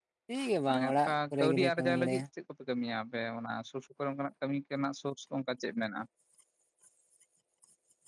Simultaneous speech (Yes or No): Yes